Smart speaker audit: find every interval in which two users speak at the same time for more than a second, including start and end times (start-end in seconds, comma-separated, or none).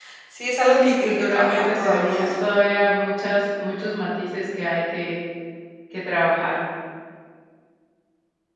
0.7-2.3